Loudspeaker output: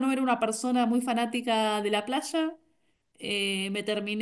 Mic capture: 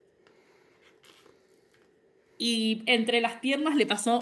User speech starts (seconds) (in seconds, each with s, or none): 2.4 s